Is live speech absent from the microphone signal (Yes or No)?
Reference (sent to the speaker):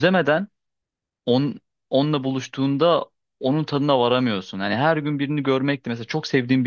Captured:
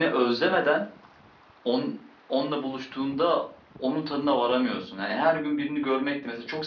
Yes